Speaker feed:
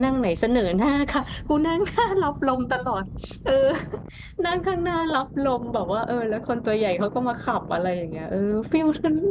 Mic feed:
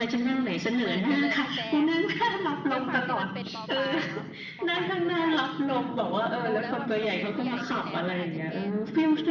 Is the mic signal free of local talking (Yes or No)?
No